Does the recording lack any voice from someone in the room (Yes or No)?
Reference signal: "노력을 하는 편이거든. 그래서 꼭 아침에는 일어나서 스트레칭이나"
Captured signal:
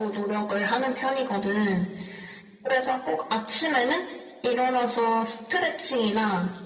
Yes